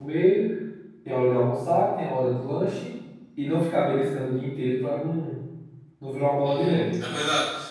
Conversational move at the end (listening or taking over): taking over